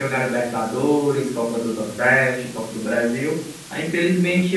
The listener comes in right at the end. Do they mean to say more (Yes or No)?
No